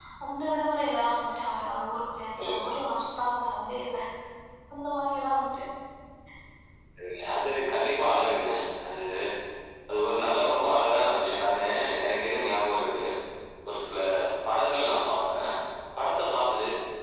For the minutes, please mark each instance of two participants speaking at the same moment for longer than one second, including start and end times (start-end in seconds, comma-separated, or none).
none